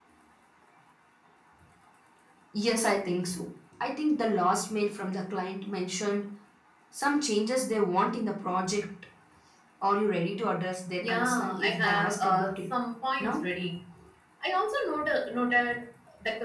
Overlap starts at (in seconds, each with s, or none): 11.0 s